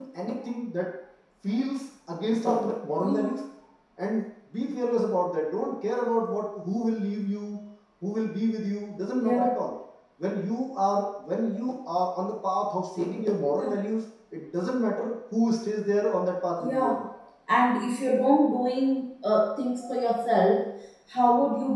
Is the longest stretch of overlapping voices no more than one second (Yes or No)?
Yes